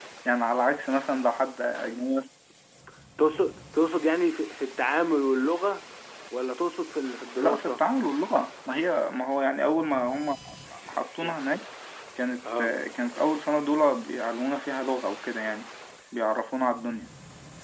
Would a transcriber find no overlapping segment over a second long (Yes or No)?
Yes